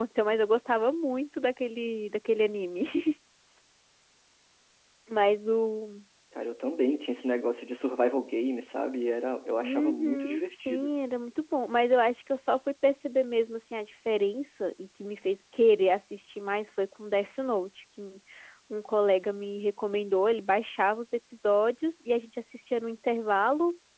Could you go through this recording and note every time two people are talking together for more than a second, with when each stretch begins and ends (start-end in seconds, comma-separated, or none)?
9.6-10.9